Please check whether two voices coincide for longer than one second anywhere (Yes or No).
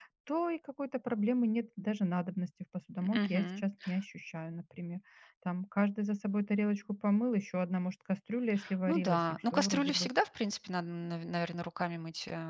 Yes